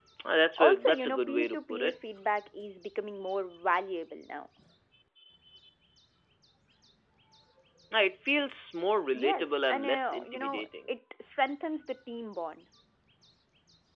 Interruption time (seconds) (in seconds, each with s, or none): 0.6 s